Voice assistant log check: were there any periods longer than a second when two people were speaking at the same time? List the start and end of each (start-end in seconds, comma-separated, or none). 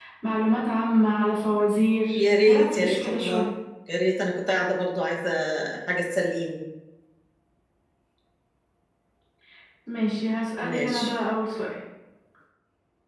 2.2-3.4